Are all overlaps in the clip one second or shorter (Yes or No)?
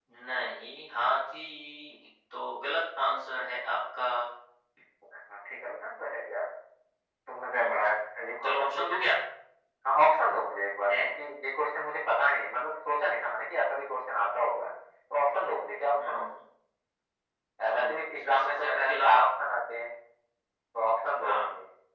No